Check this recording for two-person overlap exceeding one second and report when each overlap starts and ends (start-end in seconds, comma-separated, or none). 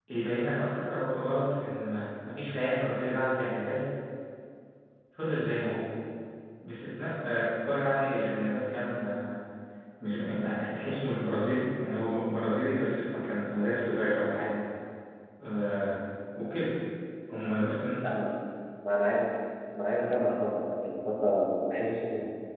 none